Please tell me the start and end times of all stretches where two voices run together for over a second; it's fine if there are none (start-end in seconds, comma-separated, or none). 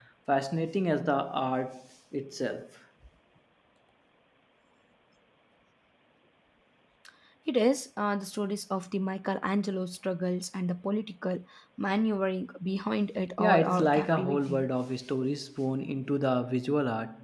13.4-14.7